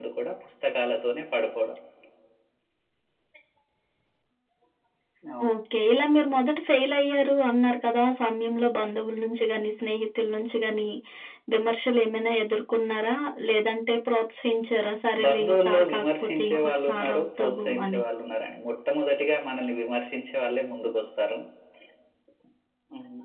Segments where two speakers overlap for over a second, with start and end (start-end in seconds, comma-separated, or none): 15.2-18.0